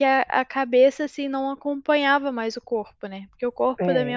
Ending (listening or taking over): listening